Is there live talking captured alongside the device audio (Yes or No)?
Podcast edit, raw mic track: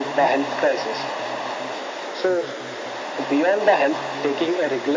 Yes